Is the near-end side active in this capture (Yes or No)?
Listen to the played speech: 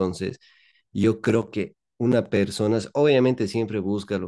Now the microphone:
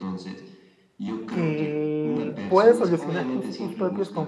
Yes